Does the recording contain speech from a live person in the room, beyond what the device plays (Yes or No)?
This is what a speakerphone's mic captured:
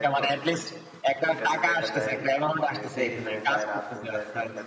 Yes